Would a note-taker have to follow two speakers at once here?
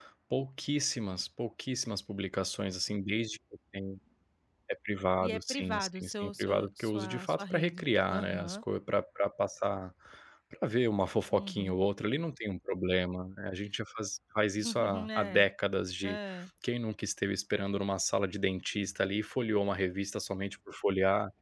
Yes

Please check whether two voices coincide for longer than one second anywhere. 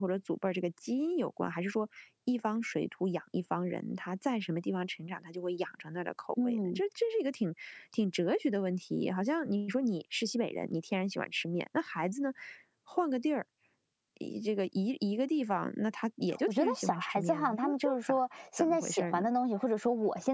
Yes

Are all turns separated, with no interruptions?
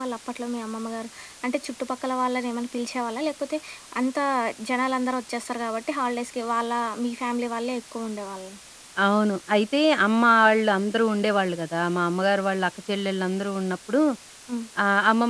Yes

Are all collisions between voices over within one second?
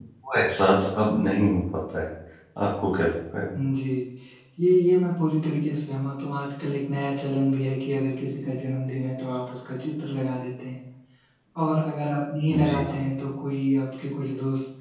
Yes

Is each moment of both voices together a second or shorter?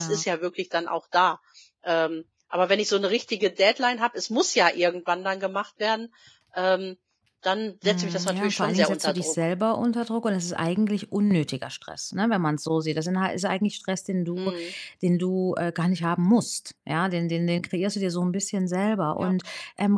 No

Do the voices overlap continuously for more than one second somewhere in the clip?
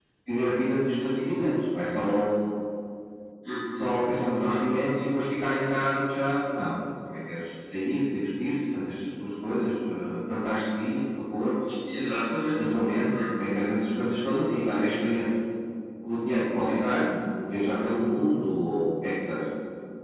No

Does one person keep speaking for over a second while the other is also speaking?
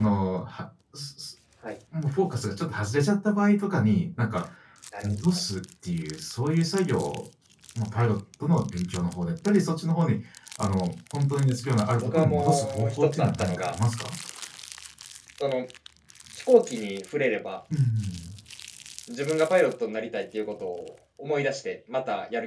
Yes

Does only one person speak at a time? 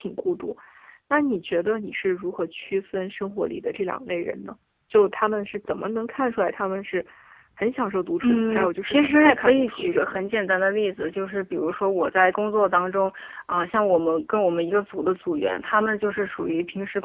No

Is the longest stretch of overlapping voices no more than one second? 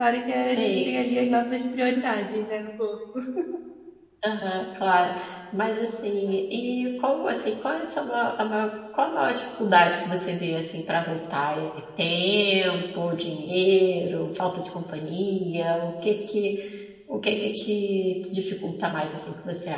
Yes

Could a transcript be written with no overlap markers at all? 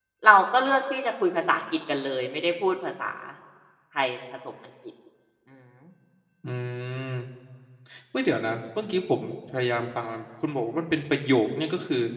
Yes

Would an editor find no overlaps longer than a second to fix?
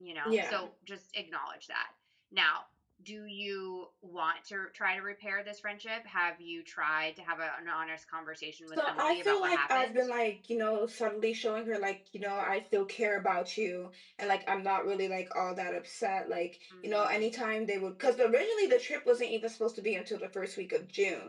No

